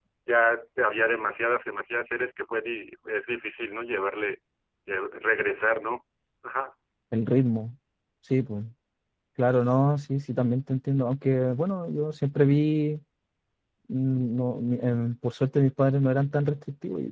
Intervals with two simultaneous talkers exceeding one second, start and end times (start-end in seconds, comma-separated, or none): none